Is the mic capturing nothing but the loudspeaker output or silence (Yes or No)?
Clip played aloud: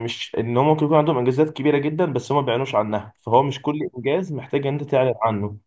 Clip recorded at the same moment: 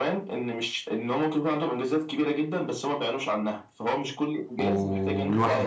No